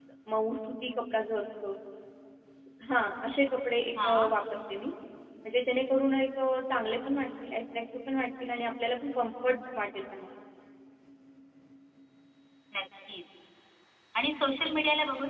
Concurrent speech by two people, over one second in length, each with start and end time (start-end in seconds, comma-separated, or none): none